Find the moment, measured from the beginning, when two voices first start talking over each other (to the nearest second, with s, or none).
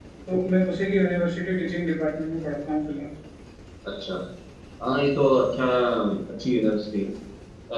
none